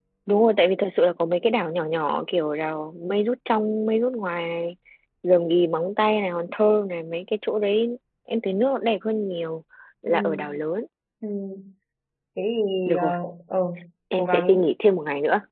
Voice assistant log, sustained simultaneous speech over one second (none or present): none